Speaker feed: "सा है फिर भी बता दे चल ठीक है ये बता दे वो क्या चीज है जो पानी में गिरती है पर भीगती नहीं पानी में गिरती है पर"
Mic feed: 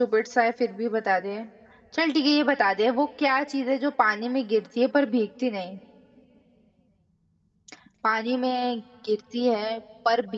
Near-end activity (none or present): none